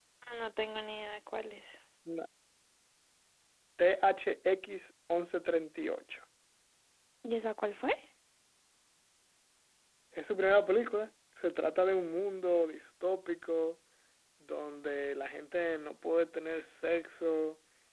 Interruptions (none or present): none